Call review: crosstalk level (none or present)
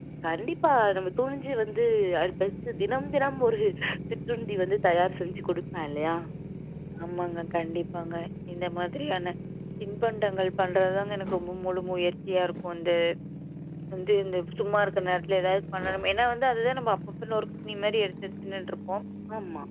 none